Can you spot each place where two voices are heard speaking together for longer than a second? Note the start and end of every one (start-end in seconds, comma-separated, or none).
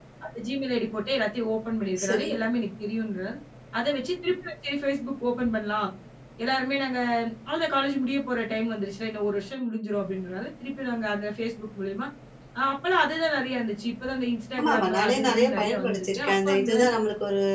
14.6-16.7